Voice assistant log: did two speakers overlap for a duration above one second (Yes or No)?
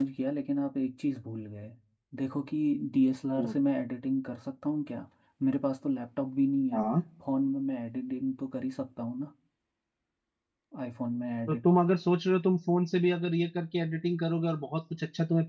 No